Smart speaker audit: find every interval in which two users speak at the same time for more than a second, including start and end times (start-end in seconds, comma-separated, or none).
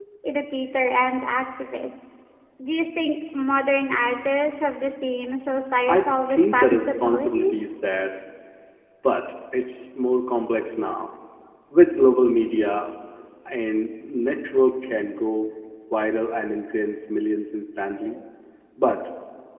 5.9-7.5